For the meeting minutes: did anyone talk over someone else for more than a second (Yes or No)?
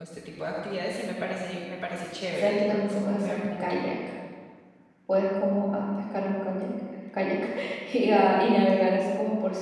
Yes